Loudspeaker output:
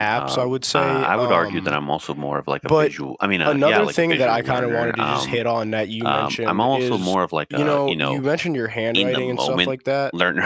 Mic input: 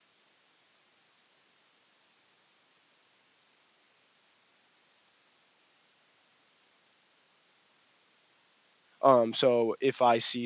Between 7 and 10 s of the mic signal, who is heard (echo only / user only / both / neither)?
user only